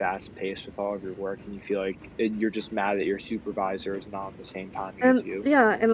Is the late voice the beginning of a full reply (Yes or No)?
Yes